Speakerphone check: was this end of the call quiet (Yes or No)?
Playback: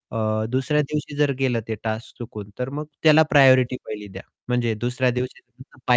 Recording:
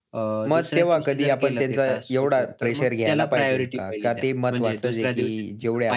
No